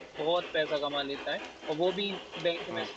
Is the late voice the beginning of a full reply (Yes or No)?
No